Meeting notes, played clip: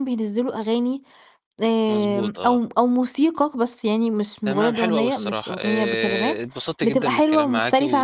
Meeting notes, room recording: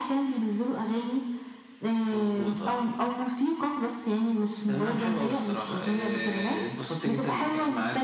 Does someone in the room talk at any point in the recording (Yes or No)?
No